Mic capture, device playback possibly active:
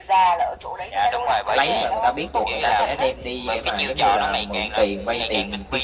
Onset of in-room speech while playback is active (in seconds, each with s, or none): 1.5 s